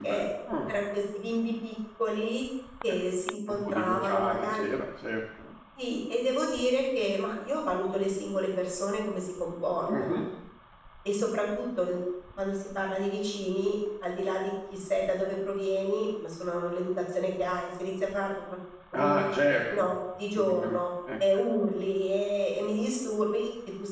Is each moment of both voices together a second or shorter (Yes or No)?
No